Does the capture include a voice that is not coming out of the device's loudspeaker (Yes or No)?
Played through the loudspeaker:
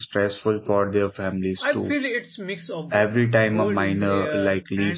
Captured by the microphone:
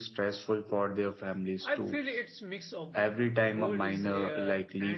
No